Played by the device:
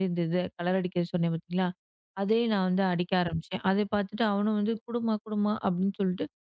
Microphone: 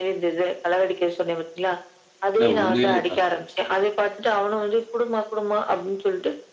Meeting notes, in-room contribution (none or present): present